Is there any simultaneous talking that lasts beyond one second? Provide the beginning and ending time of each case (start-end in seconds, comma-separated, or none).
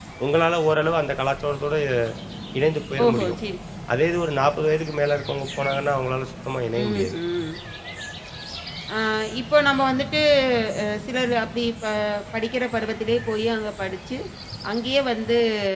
none